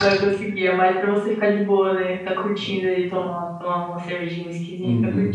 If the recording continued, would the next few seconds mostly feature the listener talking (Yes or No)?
Yes